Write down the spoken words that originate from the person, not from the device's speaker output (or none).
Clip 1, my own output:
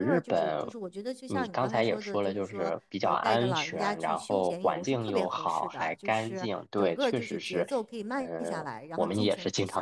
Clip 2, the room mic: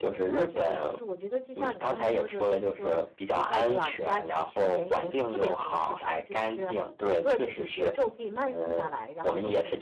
none